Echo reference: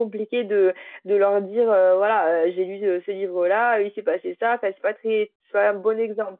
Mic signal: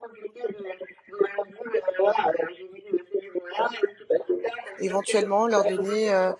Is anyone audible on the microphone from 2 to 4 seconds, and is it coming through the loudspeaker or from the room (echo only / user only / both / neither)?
echo only